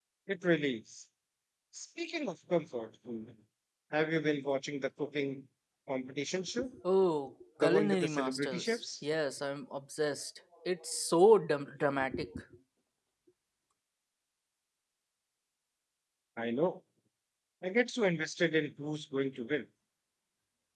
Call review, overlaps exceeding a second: present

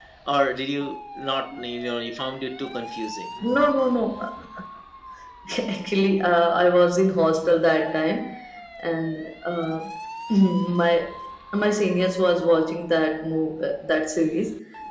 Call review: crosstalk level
none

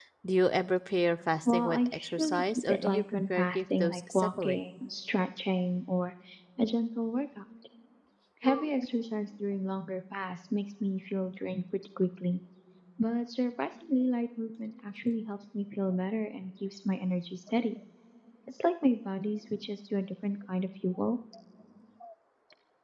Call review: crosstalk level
present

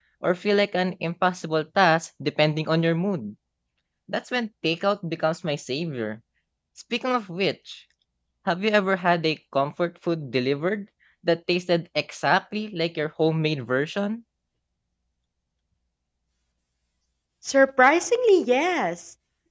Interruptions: none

